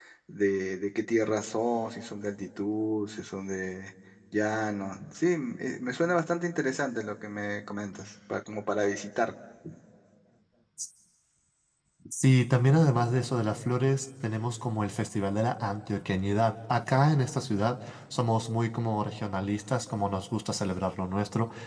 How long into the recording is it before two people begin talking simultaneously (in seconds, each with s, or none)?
none